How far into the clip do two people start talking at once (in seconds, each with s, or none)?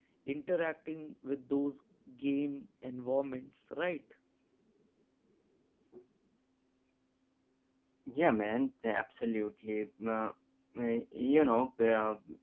none